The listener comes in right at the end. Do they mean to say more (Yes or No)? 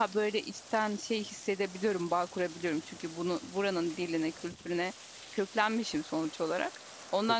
No